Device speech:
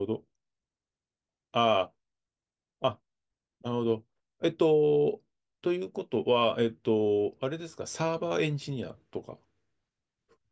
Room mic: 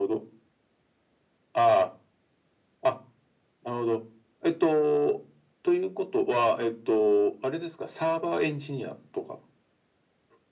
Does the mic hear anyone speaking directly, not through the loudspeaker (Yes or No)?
No